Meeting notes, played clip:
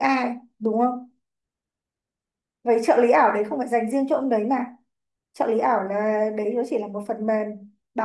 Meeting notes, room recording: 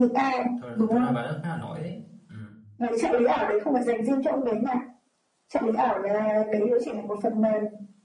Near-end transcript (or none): thật, thật ra bà đó khá là nổi đấy ừ